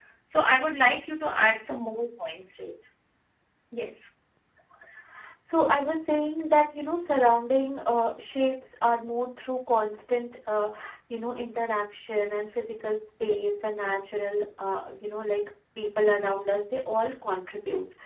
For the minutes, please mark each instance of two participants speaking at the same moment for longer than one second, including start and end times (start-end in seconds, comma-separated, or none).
none